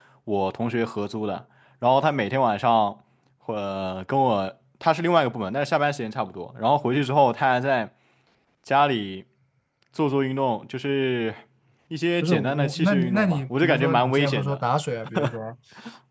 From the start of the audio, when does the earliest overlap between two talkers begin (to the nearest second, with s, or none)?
12 s